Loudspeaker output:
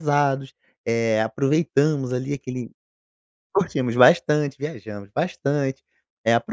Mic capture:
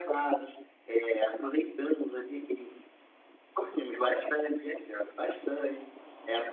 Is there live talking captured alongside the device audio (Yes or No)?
No